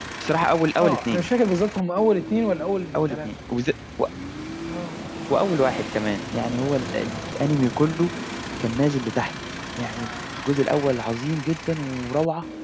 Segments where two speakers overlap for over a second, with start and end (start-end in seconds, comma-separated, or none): none